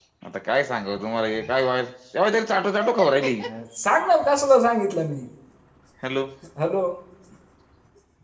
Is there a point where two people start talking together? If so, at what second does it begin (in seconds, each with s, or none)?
none